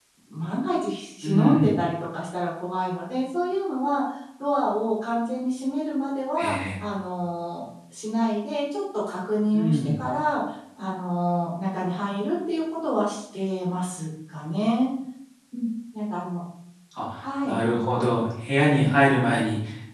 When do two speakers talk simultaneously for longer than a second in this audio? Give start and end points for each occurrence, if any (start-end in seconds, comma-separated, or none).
none